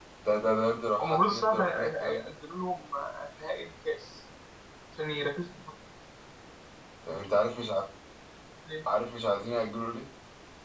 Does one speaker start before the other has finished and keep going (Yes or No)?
Yes